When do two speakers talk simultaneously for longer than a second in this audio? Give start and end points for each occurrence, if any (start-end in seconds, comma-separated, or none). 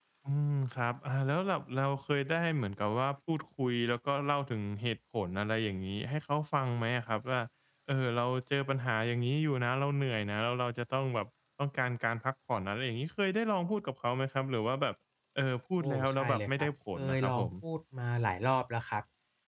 15.8-17.5